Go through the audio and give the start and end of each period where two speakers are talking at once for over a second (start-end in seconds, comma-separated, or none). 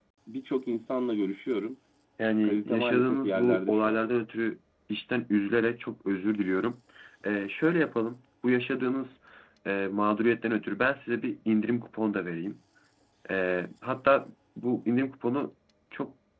2.4-4.0